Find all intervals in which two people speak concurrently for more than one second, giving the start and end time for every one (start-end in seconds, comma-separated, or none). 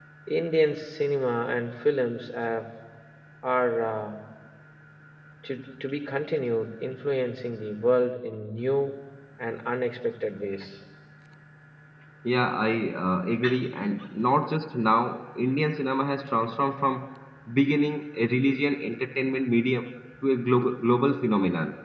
none